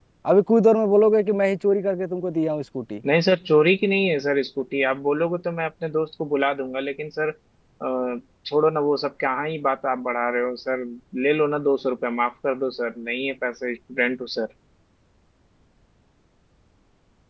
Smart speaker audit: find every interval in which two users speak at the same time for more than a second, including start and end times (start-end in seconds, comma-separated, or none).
none